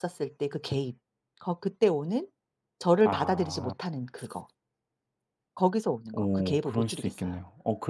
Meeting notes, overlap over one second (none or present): present